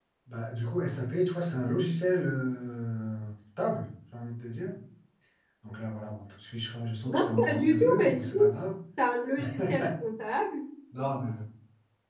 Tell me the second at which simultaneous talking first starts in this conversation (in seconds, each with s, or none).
7.0 s